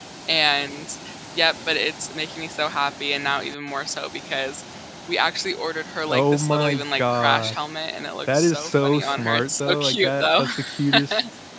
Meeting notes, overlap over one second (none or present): present